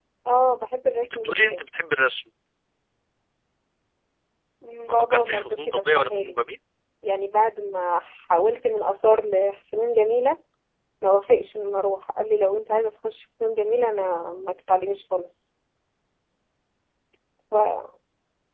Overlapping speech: Yes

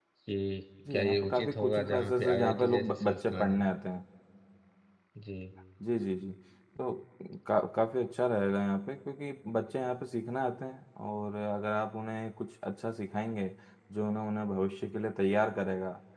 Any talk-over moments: Yes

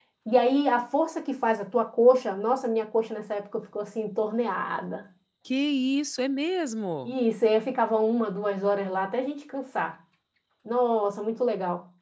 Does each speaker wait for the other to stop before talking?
Yes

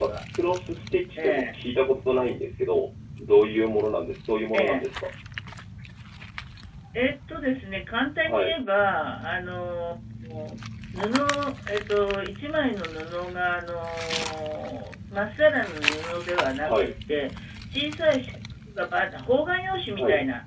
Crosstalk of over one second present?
No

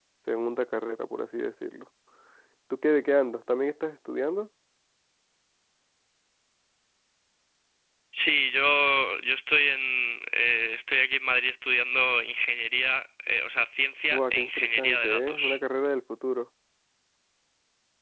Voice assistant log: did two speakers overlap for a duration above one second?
Yes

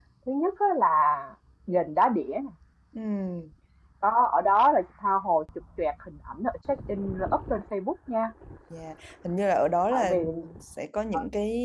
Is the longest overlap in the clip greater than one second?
No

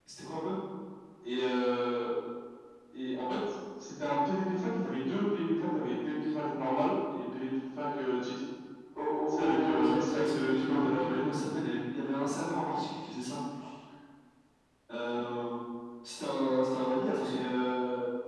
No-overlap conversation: No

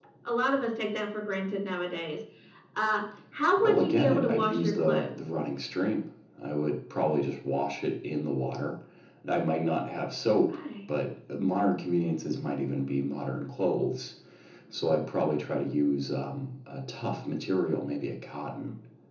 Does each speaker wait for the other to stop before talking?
No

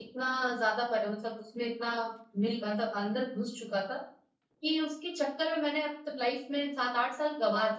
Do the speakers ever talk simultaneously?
No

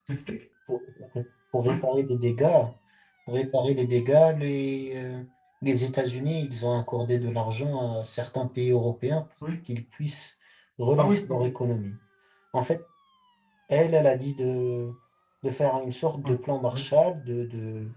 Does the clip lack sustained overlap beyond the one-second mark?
Yes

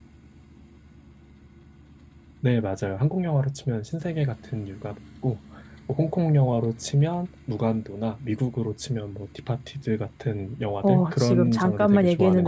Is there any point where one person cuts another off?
Yes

